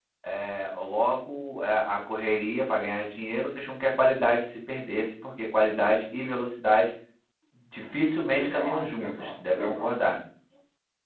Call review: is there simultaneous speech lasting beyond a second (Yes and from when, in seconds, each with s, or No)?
Yes, from 8.4 s